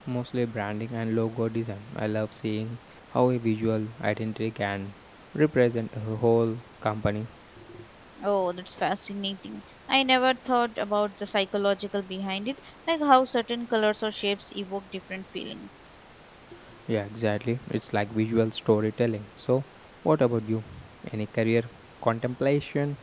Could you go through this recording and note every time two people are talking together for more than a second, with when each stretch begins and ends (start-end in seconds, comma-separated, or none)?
none